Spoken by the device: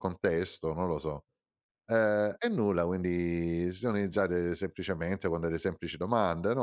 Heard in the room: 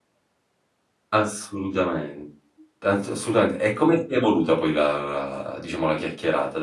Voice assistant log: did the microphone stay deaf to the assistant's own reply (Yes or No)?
Yes